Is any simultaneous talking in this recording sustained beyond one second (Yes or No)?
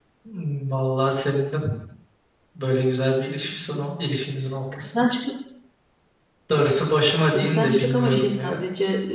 Yes